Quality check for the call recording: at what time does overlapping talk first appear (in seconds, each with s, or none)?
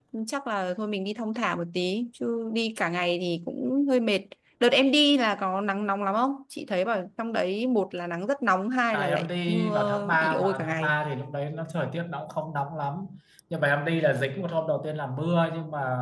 8.9 s